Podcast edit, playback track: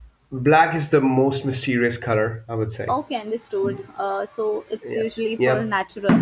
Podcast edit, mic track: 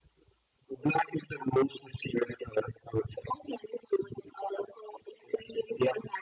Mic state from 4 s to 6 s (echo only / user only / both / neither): echo only